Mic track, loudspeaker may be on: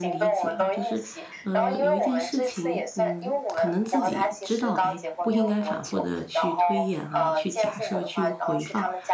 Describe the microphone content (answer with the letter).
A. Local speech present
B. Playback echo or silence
A